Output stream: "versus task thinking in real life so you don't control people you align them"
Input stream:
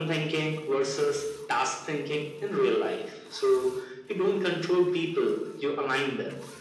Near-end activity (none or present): none